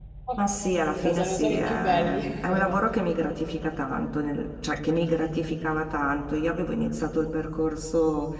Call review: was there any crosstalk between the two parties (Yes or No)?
Yes